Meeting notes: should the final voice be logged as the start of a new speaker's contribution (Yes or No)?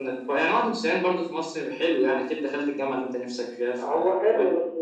Yes